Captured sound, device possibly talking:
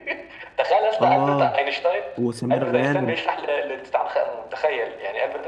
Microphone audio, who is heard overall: both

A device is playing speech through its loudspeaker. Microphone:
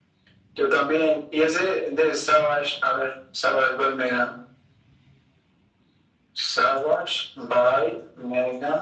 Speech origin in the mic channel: echo only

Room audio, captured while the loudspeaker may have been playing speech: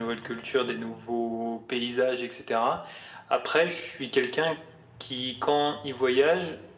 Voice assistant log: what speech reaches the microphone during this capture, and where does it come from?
echo only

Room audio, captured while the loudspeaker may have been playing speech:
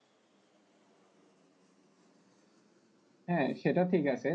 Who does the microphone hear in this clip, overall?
user only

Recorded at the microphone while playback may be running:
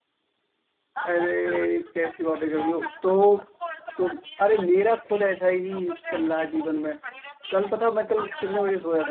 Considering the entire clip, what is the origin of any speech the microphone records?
both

